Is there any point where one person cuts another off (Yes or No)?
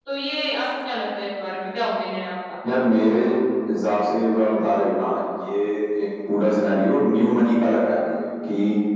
No